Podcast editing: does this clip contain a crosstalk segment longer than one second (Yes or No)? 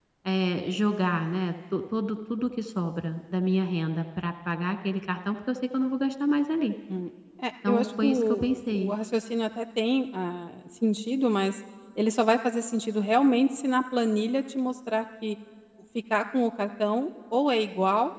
Yes